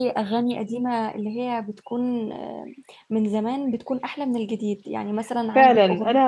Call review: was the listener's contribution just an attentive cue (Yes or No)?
No